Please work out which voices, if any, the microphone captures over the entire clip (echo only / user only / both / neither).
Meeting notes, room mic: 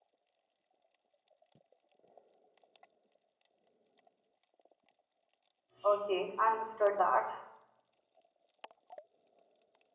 user only